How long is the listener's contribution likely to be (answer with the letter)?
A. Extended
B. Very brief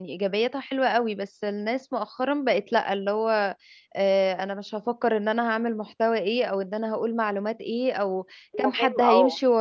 B